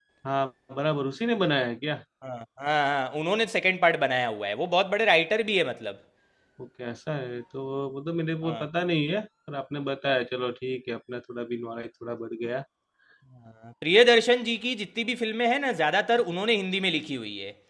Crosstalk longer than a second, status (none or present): none